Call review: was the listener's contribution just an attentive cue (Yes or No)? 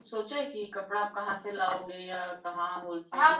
No